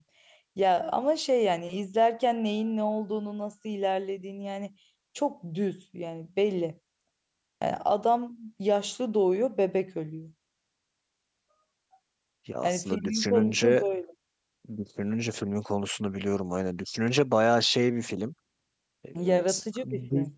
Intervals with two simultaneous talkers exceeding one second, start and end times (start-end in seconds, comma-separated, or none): 12.6-13.8